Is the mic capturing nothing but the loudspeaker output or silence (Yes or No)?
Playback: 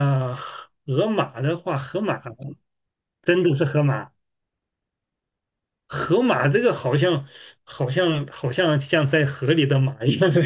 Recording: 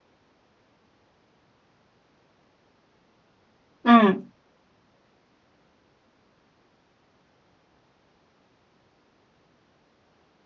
No